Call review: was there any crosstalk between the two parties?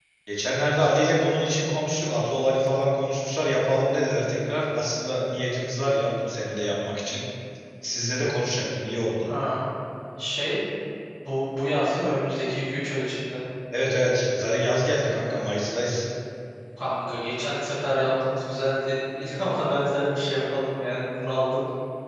No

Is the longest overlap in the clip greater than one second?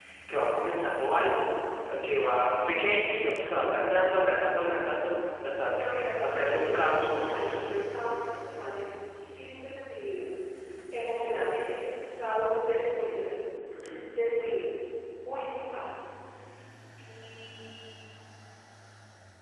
Yes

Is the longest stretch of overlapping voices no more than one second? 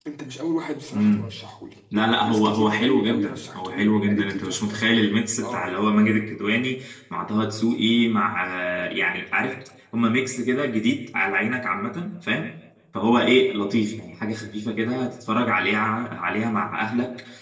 No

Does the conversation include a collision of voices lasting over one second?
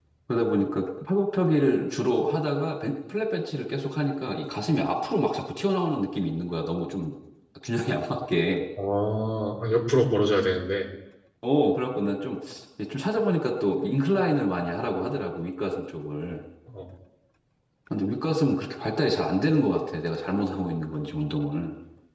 No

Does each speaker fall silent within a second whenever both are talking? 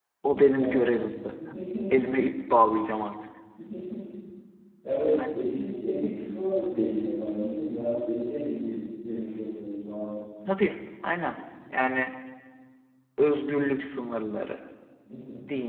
Yes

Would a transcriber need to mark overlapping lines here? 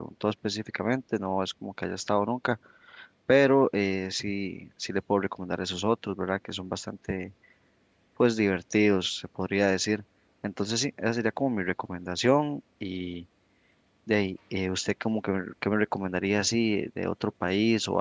No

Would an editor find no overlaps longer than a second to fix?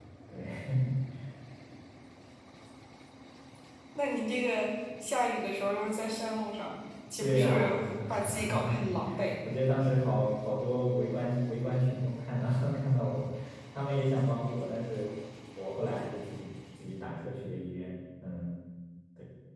No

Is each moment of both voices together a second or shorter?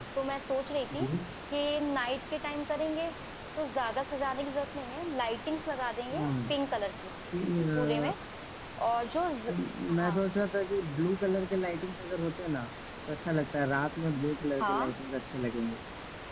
Yes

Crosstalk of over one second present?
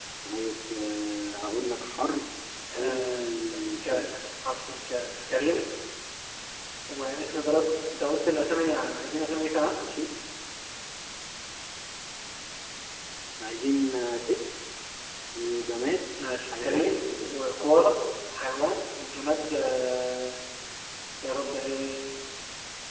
Yes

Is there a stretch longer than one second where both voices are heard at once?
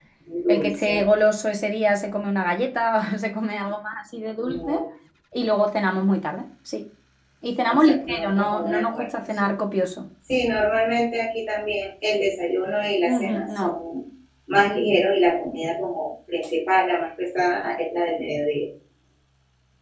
Yes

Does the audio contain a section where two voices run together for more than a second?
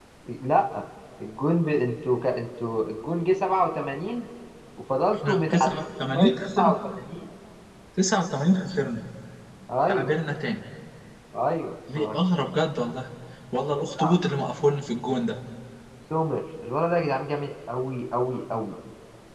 Yes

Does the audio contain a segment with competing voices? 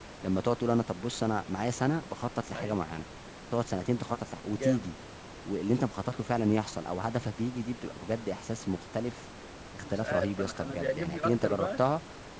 Yes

